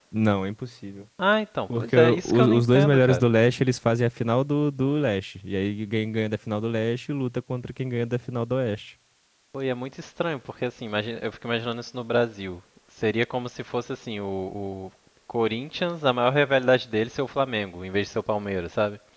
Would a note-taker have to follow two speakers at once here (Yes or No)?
Yes